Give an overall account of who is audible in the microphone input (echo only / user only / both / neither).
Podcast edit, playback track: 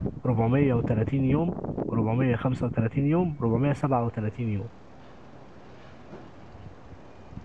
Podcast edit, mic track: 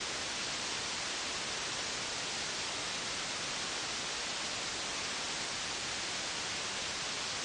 neither